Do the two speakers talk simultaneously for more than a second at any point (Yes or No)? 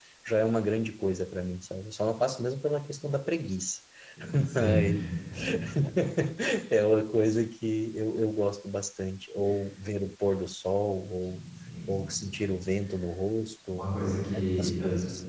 Yes